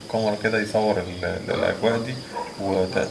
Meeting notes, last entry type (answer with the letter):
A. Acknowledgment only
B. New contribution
A